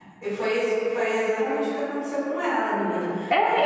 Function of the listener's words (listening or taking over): taking over